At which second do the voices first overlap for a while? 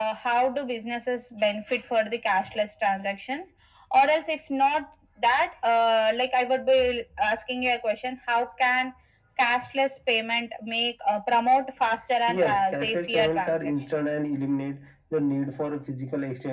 12.3 s

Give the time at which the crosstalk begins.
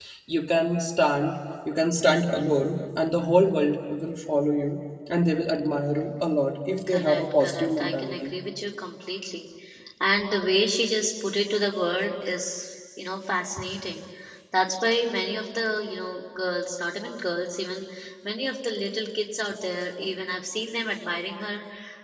6.9 s

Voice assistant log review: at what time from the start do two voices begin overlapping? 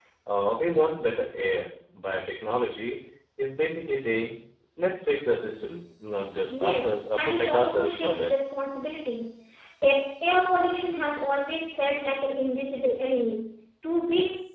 6.5 s

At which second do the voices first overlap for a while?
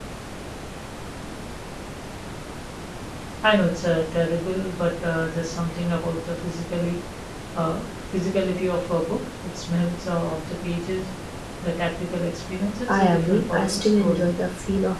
12.9 s

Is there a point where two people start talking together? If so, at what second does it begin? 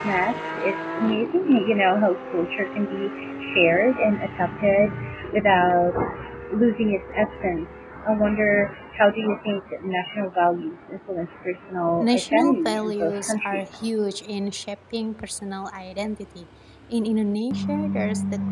12.0 s

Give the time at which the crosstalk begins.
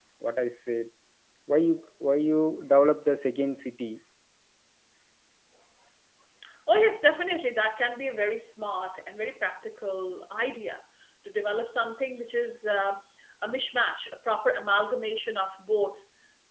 none

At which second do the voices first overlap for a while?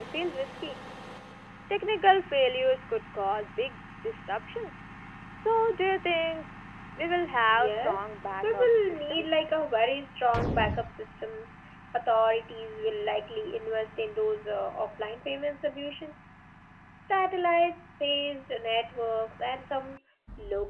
7.5 s

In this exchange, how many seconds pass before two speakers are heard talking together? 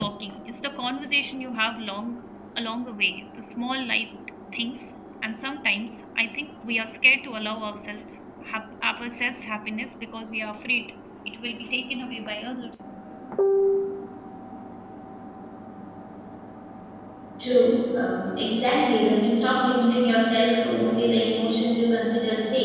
none

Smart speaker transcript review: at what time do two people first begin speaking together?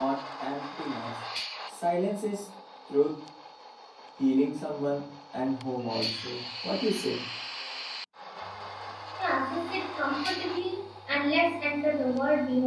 none

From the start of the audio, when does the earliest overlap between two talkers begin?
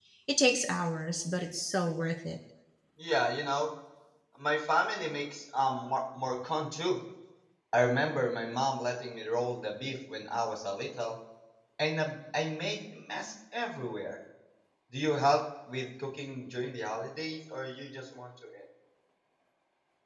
none

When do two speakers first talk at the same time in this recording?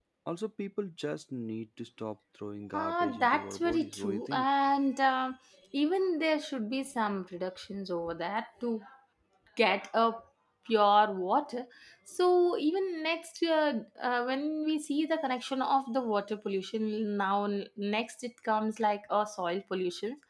2.7 s

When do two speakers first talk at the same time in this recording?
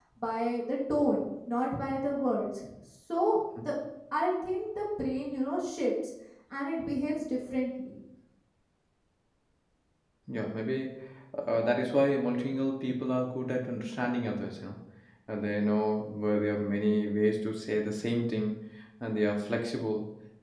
none

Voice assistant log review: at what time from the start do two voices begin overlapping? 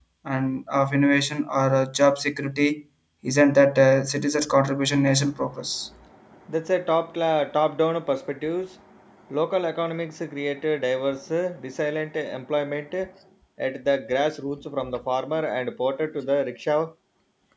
none

